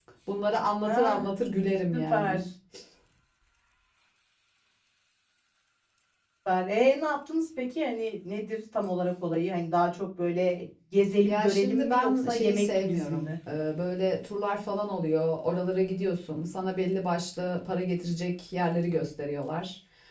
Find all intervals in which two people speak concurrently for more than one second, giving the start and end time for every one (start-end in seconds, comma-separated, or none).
11.2-13.3